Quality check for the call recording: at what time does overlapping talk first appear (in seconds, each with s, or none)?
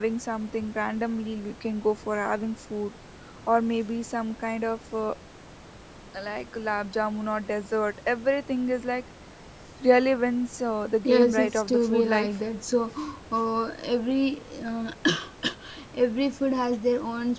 11.0 s